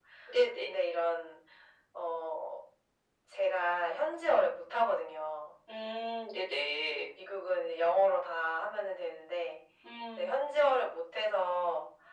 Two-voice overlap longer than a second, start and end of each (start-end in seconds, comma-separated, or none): none